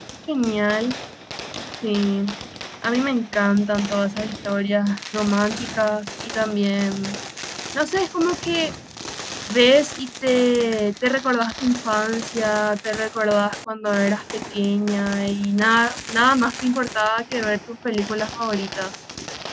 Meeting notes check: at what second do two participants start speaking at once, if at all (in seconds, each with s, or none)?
none